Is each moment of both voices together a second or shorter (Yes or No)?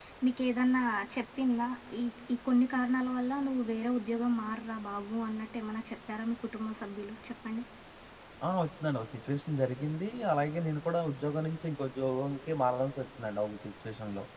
Yes